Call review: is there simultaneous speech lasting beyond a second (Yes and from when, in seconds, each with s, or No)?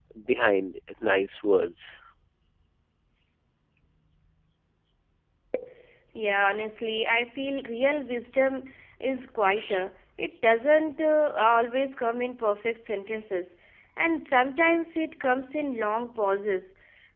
No